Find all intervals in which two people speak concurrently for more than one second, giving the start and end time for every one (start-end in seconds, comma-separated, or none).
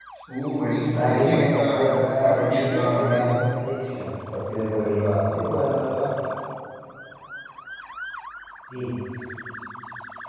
1.0-3.5